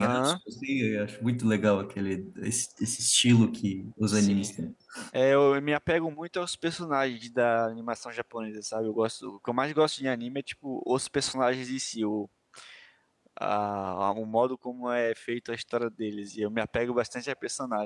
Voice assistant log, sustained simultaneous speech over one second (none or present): none